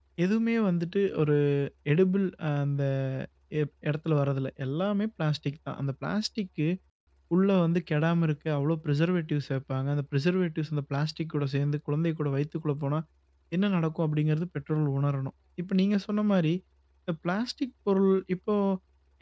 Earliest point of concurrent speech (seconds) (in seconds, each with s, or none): none